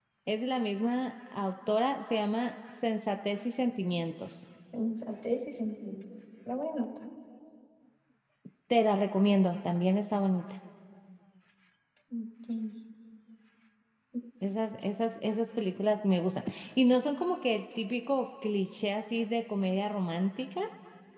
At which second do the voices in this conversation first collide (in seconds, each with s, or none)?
none